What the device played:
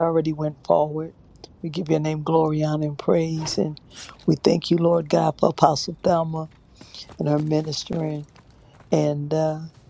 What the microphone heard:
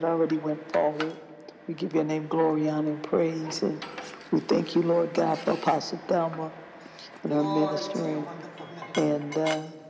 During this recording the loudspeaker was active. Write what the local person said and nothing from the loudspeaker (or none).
Glory to your wonderful name.